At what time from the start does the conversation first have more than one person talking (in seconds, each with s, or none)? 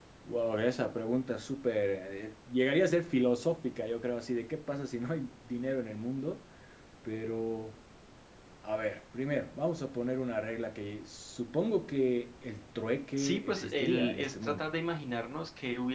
13.2 s